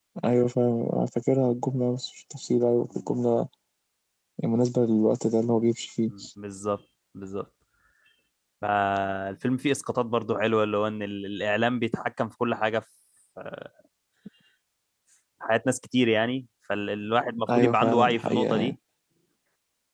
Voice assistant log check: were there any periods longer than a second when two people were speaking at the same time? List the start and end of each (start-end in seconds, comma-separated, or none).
17.6-18.8